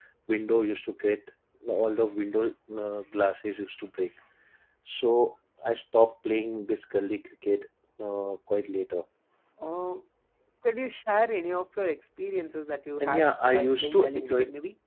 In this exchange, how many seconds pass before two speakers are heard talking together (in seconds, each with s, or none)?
13.0 s